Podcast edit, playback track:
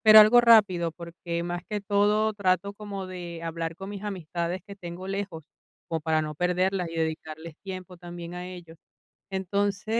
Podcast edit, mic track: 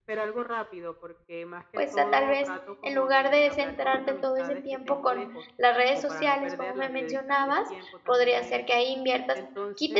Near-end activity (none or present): present